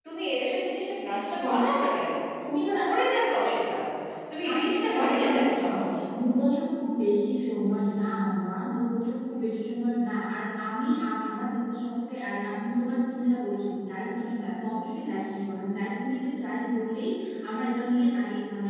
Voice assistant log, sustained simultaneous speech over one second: present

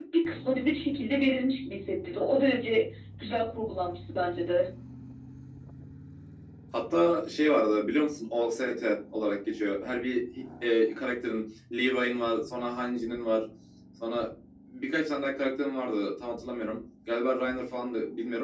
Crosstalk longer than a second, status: none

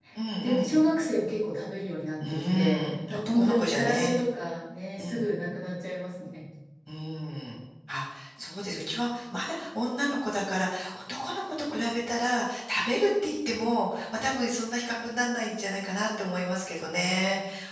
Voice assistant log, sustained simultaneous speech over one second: present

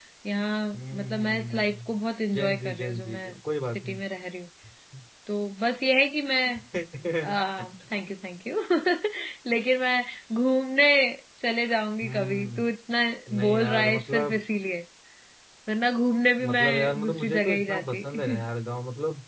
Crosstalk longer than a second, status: present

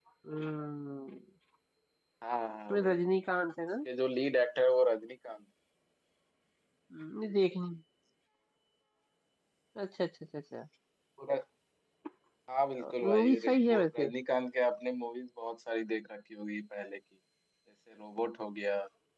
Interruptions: present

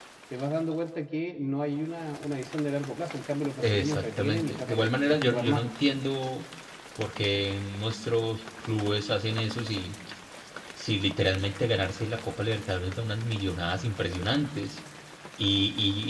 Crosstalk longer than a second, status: present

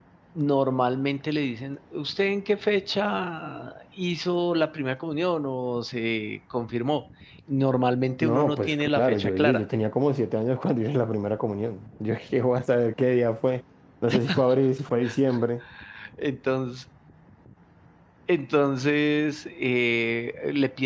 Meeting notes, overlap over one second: present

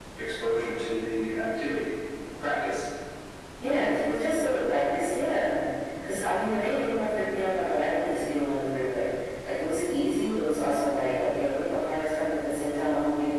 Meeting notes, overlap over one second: none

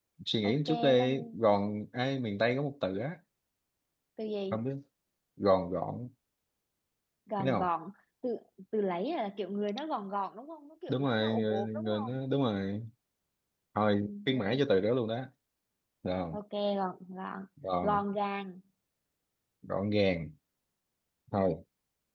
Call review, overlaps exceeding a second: present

